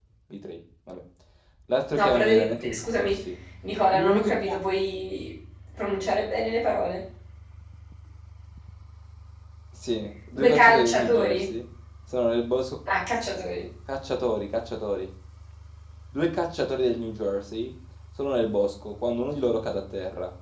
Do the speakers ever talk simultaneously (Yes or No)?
Yes